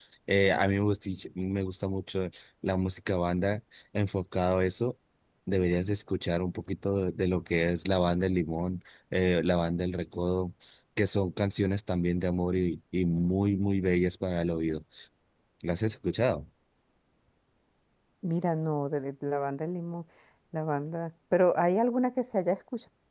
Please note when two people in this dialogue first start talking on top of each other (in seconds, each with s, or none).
none